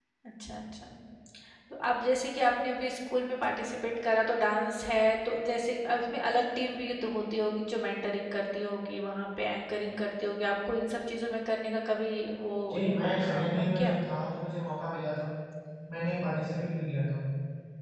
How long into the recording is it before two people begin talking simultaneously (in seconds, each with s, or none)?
12.7 s